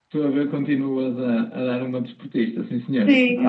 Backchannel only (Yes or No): No